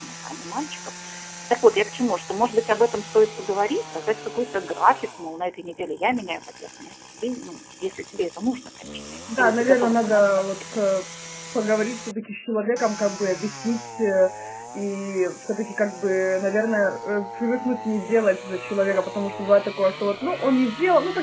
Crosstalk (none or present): present